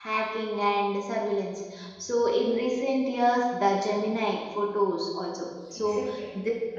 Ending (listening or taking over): taking over